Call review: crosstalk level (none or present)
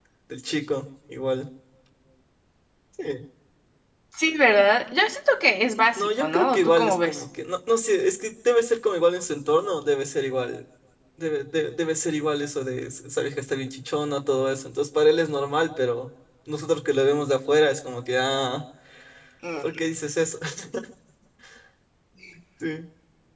present